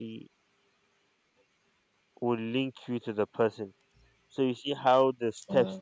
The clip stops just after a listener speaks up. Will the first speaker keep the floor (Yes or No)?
Yes